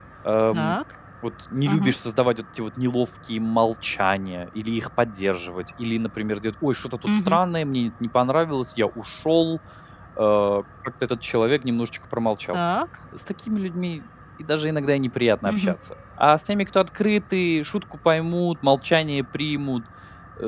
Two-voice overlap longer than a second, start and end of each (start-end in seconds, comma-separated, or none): none